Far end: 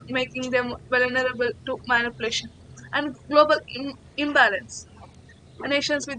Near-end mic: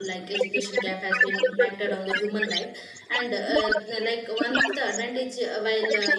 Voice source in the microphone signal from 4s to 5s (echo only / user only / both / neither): both